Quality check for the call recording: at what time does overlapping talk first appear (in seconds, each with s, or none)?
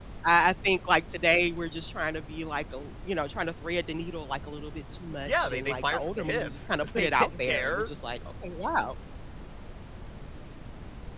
5.2 s